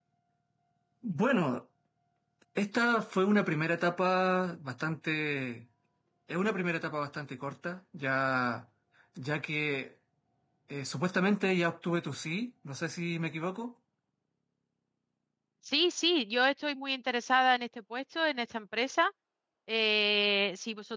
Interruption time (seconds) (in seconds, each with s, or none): none